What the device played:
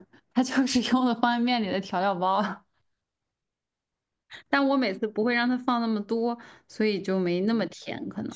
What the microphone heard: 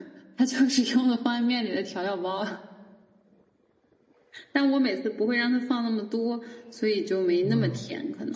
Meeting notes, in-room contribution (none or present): present